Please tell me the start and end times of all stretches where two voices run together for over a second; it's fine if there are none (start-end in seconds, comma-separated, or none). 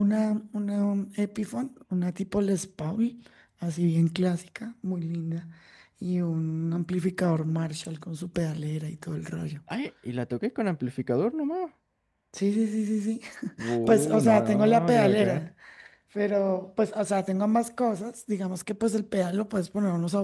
13.9-15.4